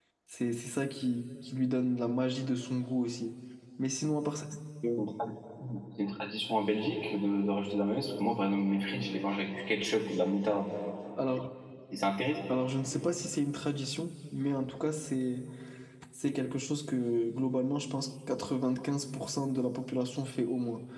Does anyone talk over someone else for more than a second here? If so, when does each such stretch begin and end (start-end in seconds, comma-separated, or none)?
none